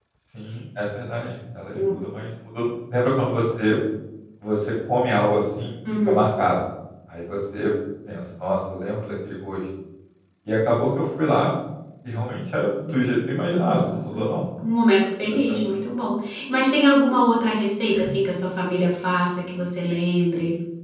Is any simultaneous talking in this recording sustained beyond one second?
No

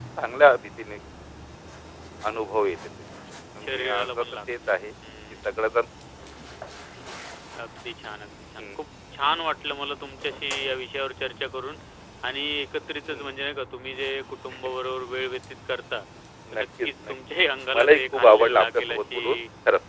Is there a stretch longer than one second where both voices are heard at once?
Yes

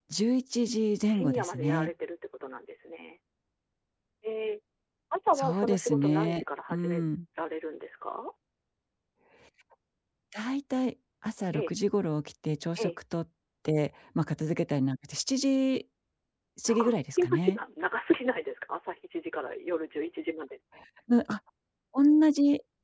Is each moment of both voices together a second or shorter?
No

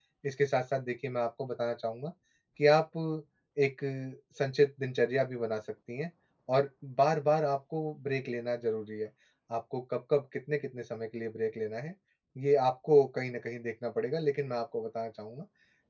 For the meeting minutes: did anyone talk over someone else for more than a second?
No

